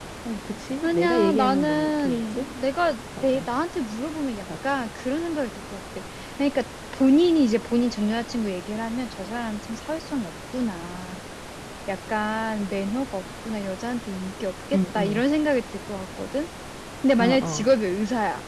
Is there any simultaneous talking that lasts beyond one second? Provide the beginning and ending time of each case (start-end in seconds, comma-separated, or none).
0.8-2.5